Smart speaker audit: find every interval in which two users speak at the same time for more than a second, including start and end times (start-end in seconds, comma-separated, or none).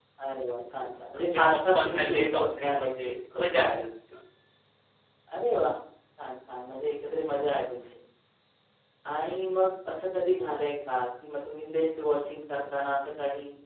1.3-3.8